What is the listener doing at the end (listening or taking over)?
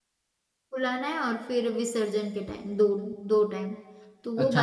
taking over